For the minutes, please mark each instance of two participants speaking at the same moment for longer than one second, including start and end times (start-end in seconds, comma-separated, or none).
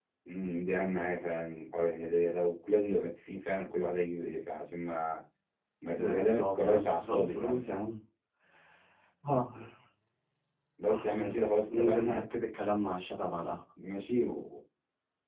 6.0-7.7, 10.9-12.2